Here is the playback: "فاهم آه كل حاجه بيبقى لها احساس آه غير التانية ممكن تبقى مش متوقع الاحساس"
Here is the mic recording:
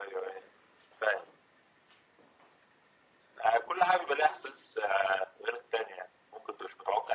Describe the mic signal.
echo only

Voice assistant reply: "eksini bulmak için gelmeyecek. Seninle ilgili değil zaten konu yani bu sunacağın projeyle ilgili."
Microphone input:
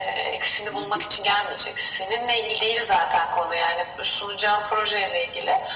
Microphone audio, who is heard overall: both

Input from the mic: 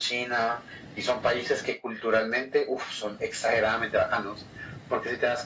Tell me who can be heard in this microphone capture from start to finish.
echo only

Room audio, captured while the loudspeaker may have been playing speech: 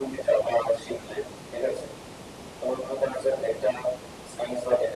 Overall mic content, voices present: echo only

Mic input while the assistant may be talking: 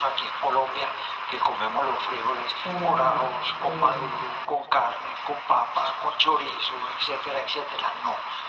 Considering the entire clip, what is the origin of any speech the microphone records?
both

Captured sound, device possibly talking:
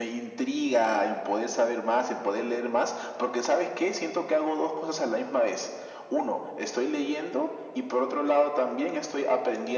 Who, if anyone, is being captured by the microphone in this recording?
echo only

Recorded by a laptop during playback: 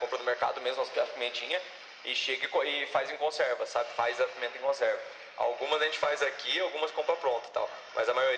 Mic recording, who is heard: echo only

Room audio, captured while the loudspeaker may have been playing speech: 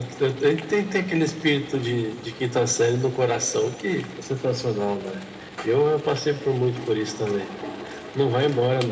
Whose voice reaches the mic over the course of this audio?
echo only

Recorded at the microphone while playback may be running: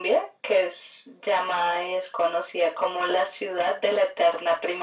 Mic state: echo only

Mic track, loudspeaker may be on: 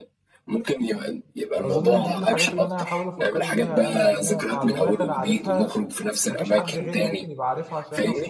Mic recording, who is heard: both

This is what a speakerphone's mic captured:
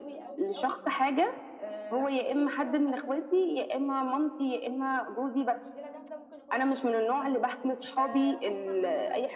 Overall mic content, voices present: both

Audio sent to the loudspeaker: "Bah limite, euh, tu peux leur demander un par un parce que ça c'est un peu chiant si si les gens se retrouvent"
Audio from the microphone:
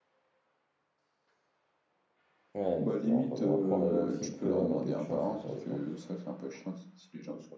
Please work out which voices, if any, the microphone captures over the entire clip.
both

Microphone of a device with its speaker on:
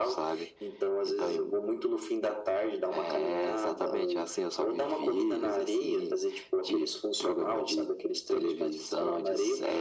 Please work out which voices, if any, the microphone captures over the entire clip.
echo only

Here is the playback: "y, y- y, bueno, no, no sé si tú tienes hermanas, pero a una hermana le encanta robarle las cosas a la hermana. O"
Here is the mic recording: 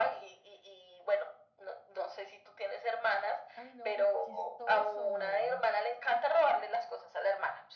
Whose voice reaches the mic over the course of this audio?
both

